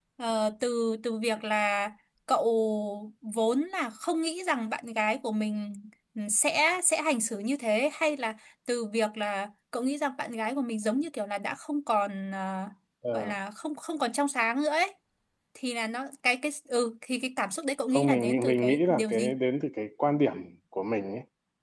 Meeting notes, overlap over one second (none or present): present